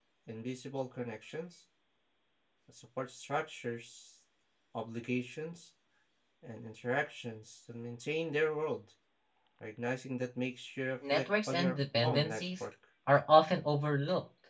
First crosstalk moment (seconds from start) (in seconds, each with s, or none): 11.0 s